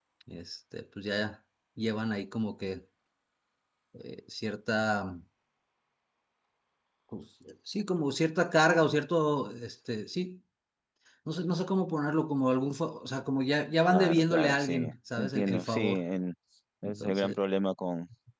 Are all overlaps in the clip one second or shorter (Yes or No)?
No